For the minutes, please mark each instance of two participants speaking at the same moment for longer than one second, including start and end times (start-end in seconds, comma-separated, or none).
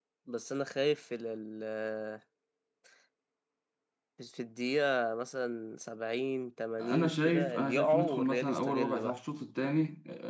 6.8-9.1